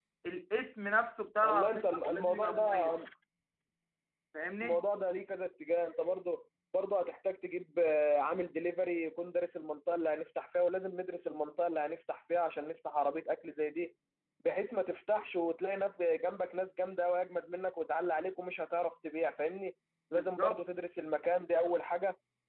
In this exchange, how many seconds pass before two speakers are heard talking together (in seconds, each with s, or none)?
1.4 s